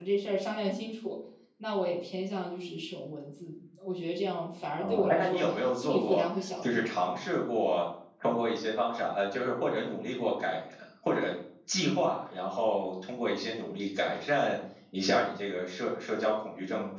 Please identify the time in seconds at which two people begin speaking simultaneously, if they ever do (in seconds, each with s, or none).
4.8 s